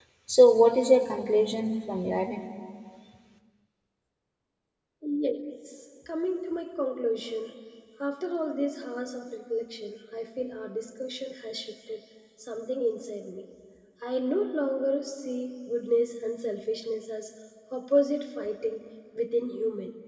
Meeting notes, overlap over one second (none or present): none